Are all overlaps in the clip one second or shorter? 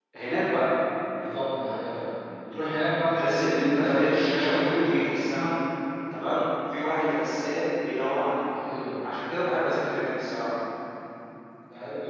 No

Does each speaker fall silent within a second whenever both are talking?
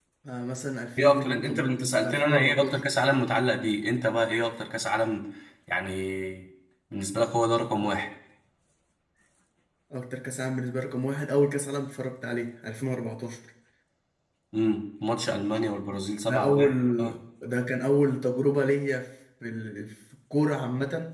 No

